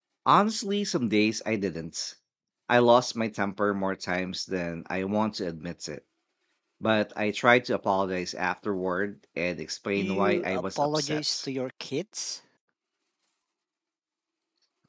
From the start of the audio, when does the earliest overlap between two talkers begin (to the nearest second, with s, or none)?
10 s